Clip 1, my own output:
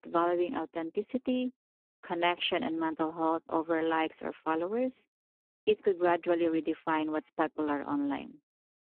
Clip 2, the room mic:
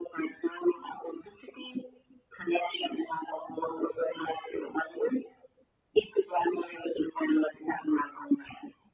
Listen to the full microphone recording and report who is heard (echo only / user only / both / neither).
echo only